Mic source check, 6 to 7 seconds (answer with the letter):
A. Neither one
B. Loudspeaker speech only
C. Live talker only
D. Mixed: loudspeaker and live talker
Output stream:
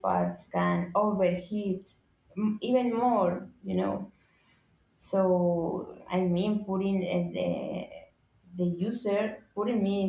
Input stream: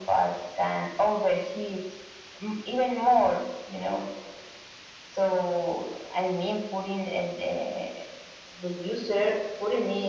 B